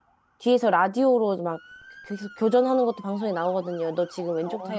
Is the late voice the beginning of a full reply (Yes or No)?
No